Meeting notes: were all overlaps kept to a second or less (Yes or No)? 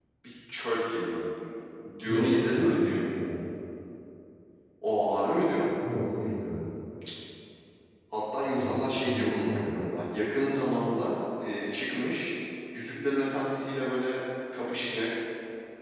No